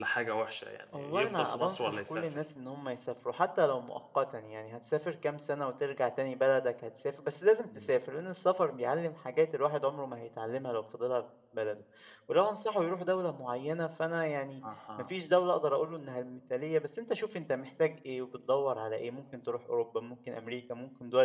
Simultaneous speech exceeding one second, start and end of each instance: 1.0-2.2

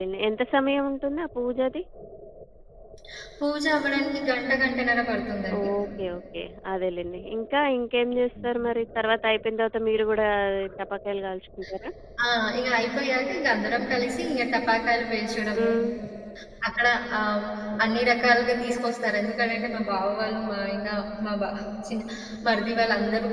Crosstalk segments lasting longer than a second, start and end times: none

